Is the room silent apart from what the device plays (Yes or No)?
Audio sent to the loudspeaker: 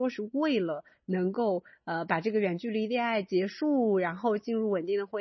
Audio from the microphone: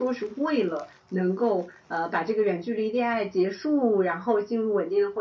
Yes